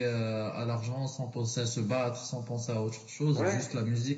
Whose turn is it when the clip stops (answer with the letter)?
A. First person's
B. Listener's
A